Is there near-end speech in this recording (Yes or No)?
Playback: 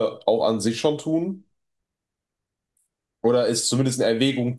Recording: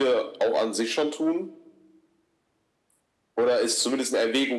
No